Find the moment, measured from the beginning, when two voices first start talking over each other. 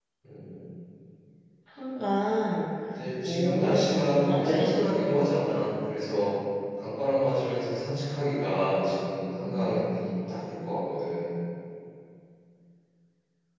3.2 s

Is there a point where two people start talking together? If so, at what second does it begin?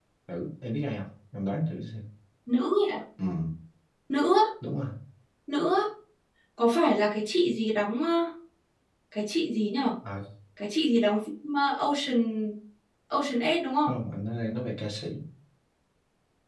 none

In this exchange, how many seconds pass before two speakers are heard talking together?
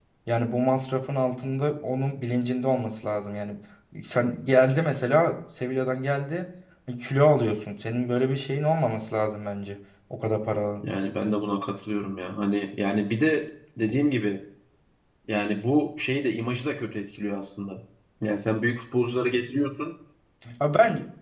none

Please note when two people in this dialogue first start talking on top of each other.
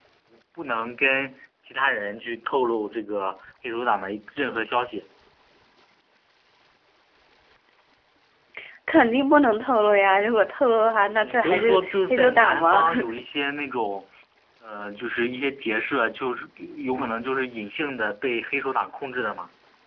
11.1 s

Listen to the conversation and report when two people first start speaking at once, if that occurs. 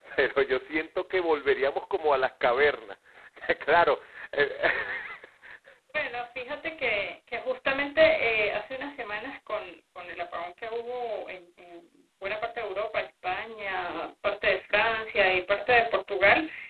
none

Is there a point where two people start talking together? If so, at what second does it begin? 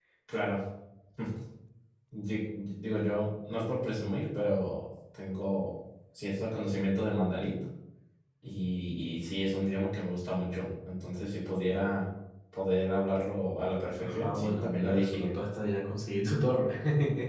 14.0 s

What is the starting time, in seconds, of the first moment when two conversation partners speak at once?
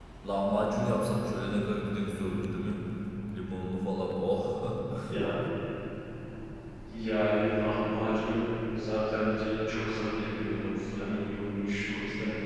none

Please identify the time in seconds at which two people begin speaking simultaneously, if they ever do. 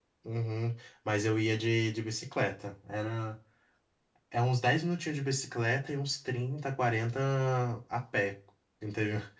none

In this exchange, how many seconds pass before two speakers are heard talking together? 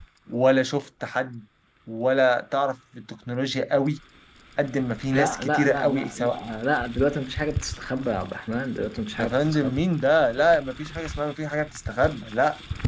5.1 s

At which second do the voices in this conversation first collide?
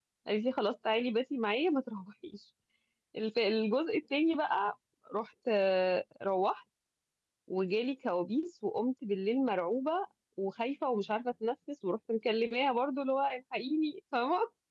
none

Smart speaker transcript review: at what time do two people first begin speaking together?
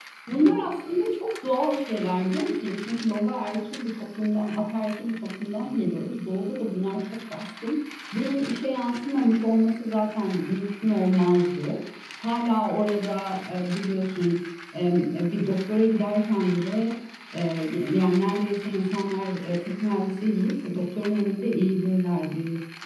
none

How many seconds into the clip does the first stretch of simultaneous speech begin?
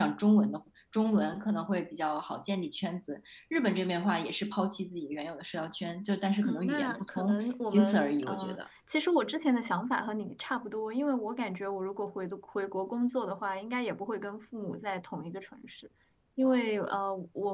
6.4 s

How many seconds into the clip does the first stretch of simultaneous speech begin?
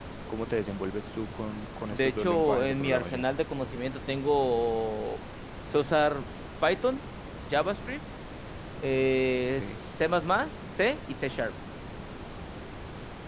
1.9 s

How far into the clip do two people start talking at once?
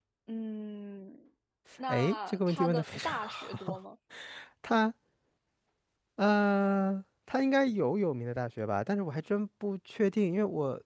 1.9 s

